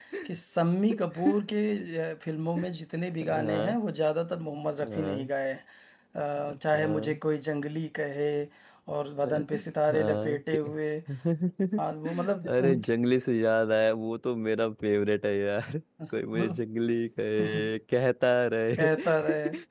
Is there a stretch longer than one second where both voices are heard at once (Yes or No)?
Yes